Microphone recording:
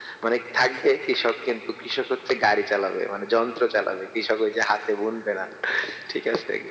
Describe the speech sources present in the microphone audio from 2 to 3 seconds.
echo only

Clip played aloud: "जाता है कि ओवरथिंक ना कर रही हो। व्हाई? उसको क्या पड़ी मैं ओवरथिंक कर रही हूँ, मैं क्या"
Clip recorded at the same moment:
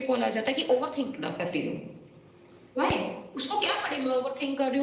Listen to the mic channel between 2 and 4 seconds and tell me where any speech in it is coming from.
echo only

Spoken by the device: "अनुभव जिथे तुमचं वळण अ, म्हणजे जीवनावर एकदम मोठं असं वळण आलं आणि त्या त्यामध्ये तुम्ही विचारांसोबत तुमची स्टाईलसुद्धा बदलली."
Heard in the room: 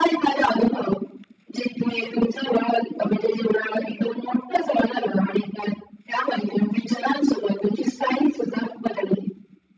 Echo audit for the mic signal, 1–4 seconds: echo only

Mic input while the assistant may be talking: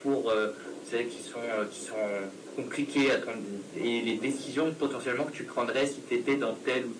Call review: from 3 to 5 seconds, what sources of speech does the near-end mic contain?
echo only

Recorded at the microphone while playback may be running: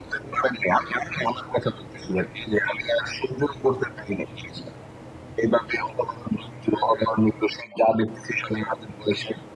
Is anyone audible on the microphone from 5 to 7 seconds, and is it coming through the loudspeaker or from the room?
echo only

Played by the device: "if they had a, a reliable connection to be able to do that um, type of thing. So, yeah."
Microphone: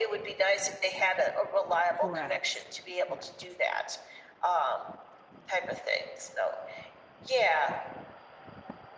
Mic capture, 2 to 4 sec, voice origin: both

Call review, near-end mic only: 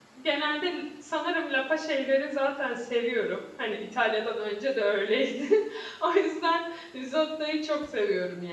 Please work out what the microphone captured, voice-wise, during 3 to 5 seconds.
user only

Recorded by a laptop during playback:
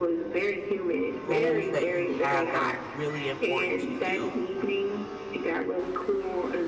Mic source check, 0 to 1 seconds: echo only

